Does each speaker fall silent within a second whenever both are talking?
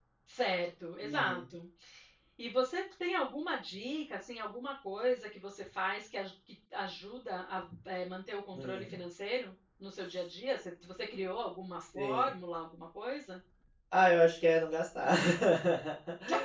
Yes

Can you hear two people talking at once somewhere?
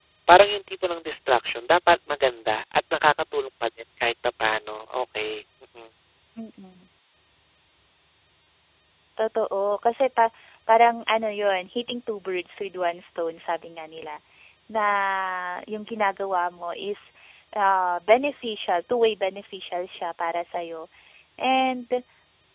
No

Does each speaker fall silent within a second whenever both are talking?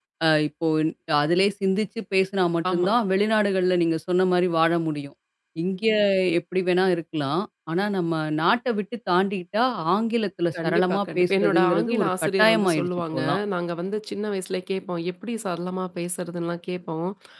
No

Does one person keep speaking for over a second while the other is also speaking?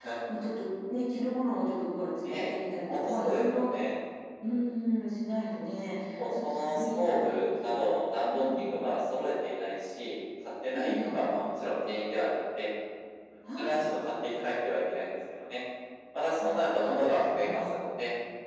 Yes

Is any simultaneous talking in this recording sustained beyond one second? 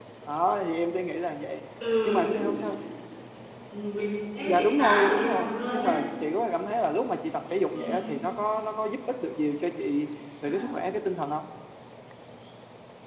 Yes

